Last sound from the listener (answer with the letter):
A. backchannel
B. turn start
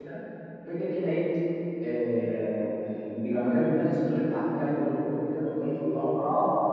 B